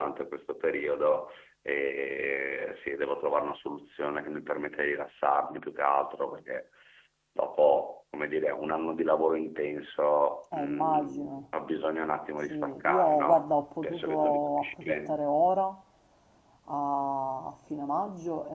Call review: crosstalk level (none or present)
present